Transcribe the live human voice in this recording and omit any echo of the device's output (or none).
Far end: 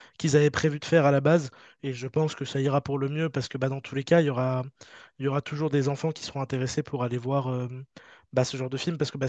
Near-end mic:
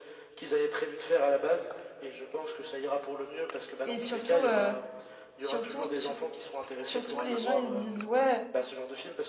Et surtout, euh, surtout, sur- Surtout, les gens, ils se disent, ouais,